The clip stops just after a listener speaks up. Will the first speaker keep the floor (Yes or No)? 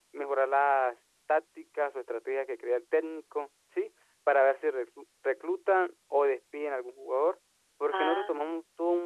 Yes